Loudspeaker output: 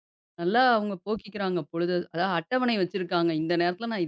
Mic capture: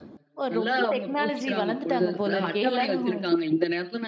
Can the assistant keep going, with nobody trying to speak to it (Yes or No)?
No